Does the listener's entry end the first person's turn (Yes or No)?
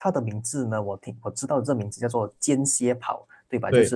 No